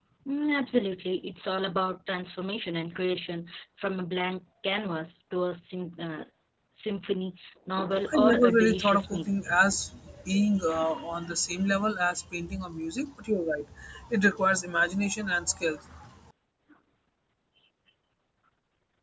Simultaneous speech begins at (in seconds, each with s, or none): 8.1 s